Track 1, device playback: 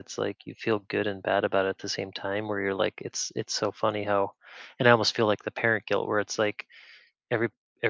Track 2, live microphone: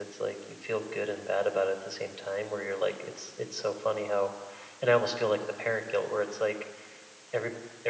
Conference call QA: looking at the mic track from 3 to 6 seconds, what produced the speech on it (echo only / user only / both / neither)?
echo only